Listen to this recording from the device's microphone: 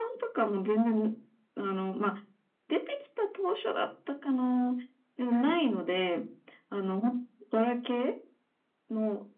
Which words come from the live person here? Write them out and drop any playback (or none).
はい。